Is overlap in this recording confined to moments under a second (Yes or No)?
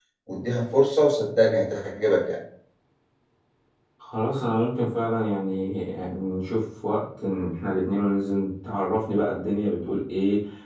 Yes